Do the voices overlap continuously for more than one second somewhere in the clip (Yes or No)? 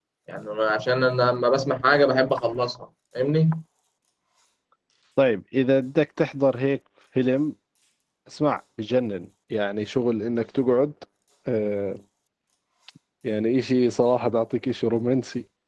No